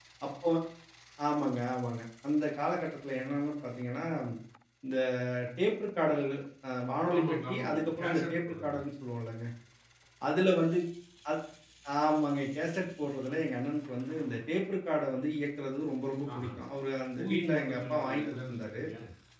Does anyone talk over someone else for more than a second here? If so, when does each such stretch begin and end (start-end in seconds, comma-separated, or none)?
7.2-8.7, 17.2-18.8